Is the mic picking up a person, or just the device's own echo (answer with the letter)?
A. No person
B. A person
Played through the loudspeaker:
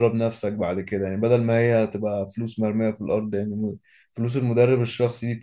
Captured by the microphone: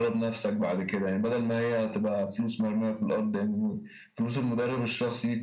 A